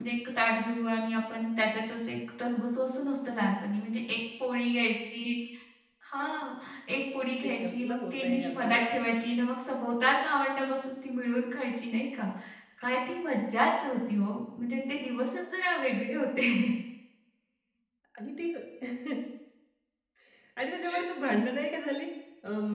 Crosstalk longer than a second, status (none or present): present